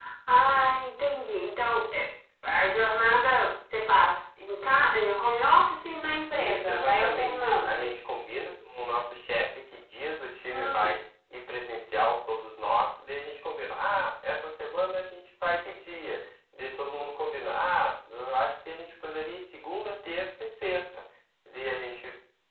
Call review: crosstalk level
present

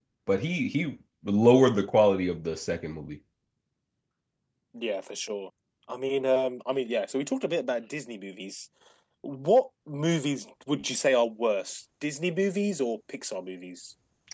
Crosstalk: none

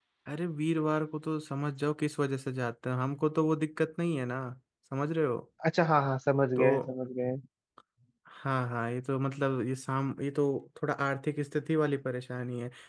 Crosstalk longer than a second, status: none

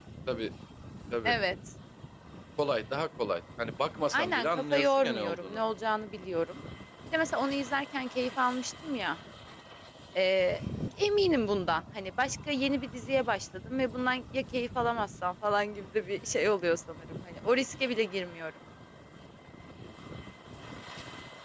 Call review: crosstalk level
present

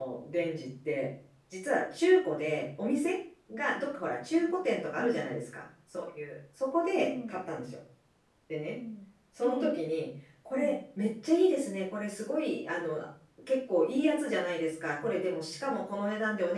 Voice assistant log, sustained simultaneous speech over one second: none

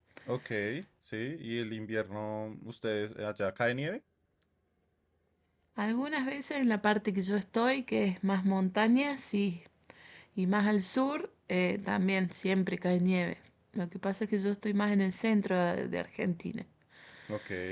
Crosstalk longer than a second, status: none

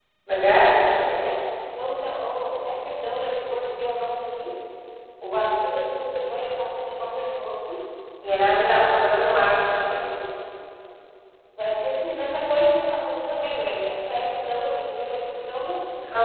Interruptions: none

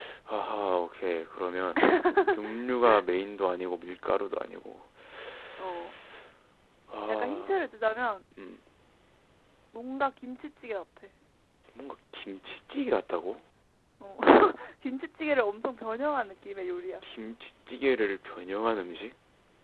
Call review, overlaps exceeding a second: none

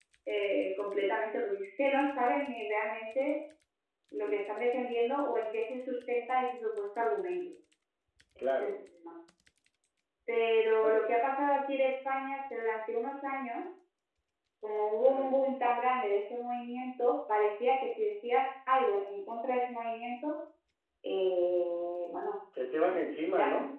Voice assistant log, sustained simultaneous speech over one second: none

